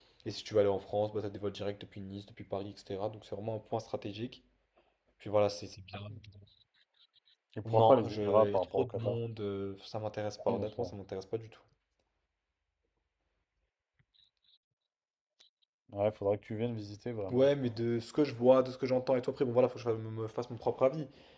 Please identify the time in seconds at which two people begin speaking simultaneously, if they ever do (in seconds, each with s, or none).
7.7 s